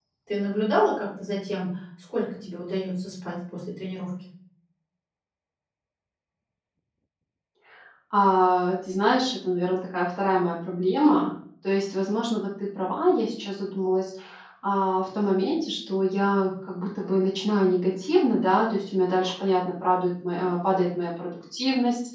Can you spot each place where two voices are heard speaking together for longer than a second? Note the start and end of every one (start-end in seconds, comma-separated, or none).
none